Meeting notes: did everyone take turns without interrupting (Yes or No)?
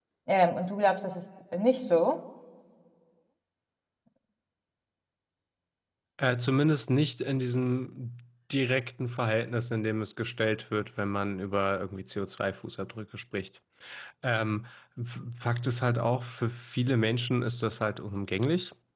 Yes